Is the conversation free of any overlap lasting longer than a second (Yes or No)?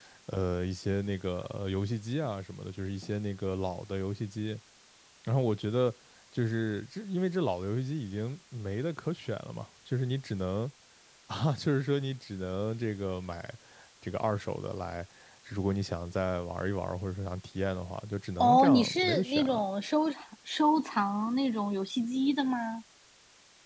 No